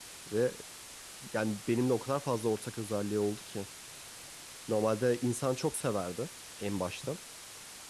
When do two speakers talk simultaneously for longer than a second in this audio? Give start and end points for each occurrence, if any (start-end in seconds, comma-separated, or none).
none